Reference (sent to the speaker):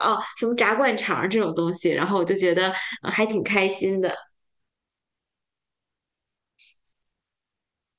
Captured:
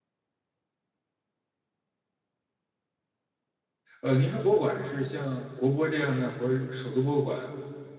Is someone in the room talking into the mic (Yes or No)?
Yes